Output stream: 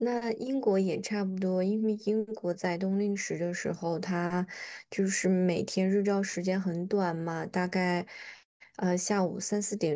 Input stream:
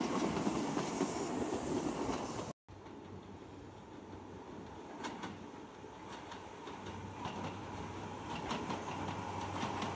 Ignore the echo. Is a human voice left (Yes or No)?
No